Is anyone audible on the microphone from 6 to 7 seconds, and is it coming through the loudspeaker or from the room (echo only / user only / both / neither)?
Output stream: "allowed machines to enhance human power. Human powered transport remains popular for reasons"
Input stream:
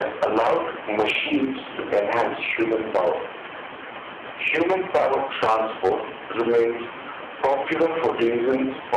echo only